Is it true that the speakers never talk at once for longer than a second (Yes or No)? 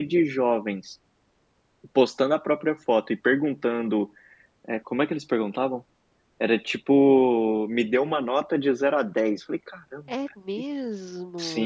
Yes